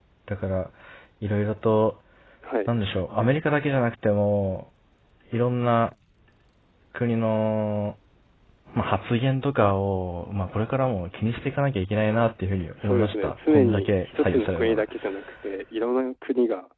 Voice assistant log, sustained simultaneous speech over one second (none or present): present